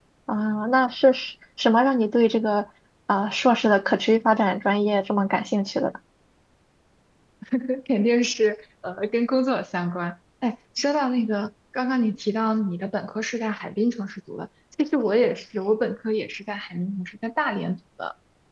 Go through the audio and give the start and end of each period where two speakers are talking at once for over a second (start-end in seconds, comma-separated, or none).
none